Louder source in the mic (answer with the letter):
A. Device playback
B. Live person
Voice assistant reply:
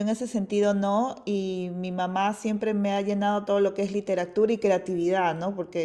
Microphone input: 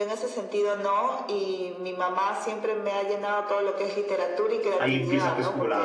B